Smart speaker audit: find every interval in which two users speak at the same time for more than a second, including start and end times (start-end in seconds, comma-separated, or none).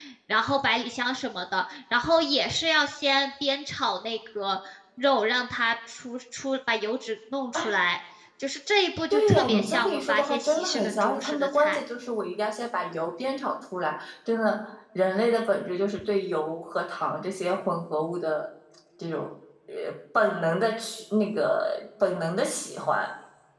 9.1-11.8